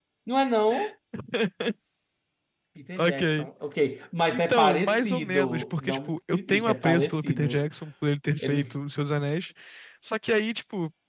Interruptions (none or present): present